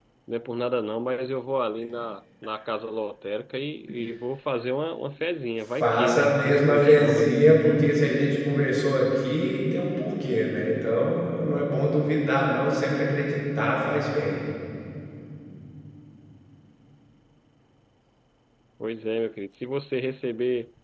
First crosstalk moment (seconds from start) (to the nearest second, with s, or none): 6 s